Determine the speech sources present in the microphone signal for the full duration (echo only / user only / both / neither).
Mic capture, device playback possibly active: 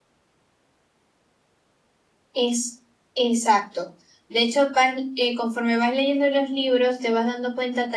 user only